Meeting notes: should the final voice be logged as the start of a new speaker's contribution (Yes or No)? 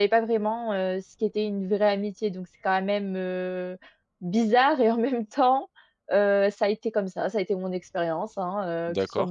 No